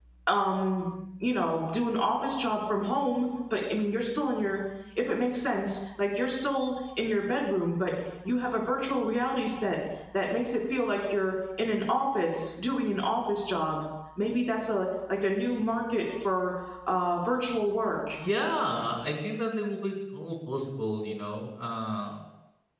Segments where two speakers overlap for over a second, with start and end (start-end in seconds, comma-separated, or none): none